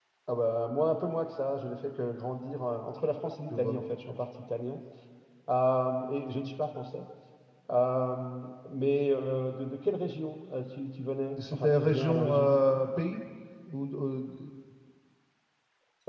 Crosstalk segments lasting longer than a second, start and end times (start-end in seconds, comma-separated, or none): 11.4-12.6